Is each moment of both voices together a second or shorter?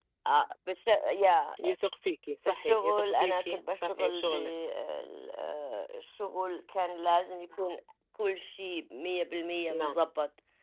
No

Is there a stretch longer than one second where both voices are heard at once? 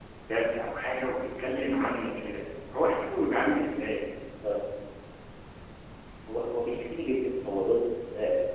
No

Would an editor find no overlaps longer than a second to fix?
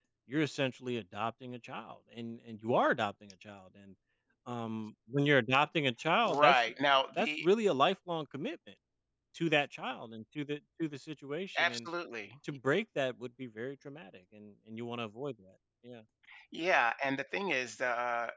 Yes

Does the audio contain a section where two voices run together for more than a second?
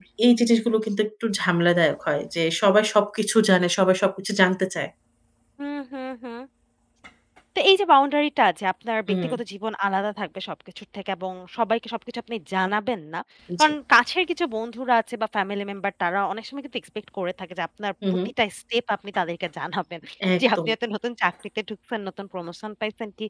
No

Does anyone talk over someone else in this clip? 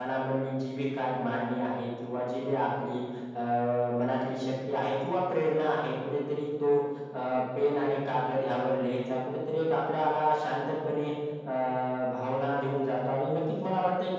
No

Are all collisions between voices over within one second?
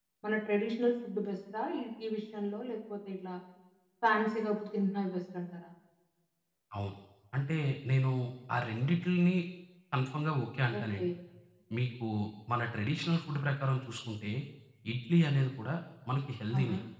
Yes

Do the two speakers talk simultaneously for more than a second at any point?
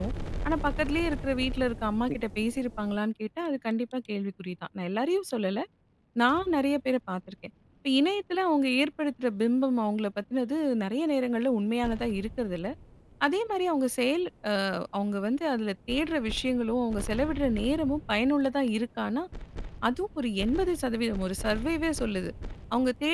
No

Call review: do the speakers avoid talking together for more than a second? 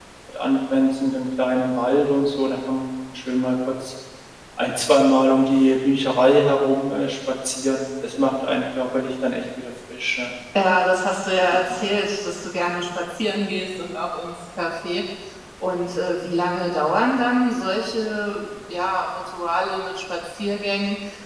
Yes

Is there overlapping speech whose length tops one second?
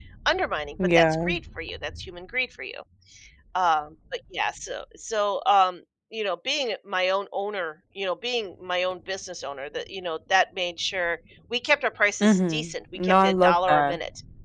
Yes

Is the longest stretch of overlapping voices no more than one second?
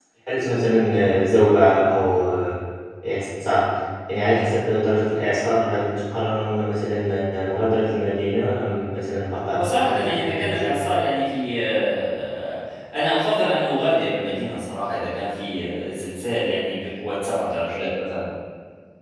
No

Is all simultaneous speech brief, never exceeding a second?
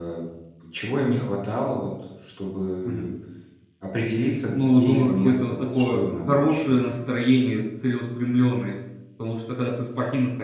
No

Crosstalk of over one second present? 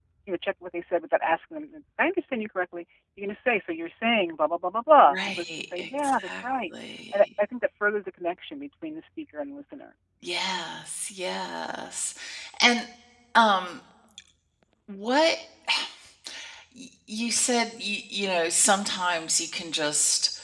Yes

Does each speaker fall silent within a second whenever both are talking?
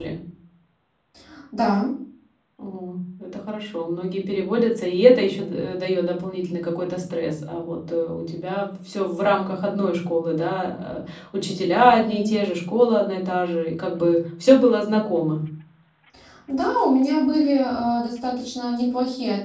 Yes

